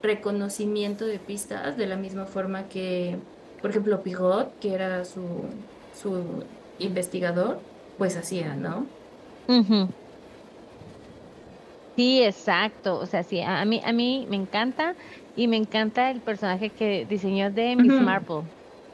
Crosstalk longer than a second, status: none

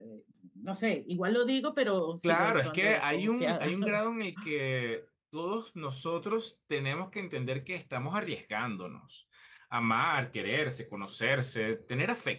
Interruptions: present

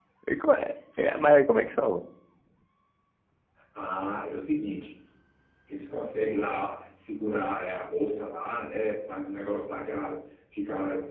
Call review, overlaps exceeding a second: none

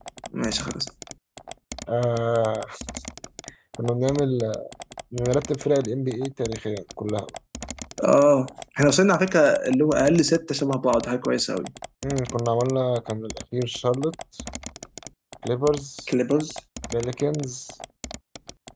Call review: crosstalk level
none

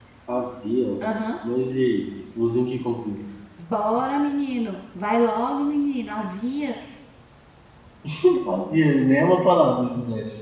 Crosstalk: none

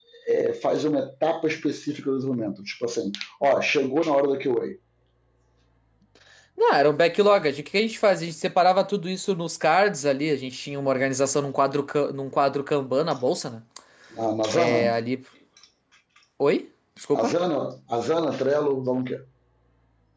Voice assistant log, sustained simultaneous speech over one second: none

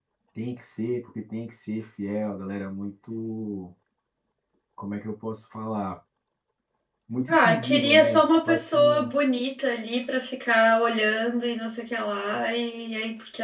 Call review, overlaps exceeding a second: present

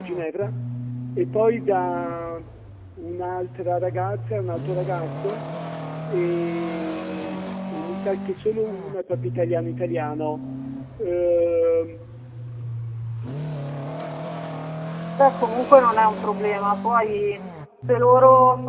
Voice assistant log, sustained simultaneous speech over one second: none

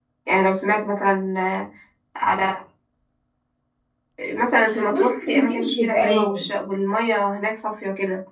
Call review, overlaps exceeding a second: present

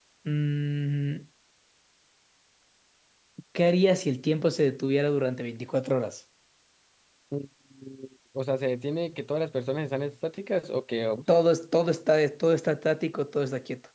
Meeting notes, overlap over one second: none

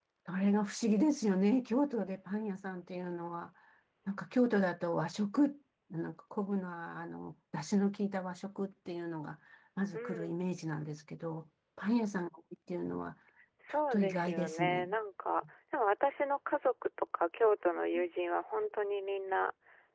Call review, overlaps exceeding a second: present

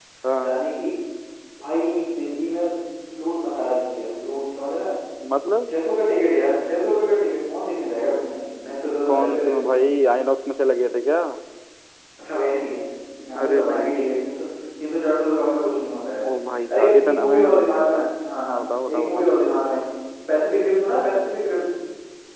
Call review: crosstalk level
present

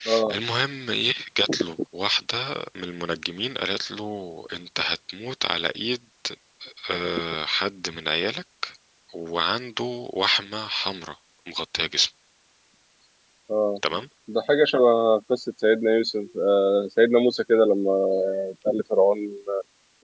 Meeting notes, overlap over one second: none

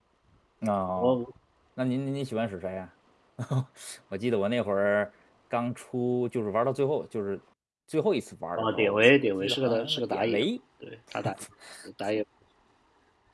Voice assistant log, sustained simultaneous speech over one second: present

